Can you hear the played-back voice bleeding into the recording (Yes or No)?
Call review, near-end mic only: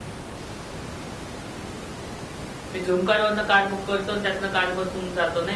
No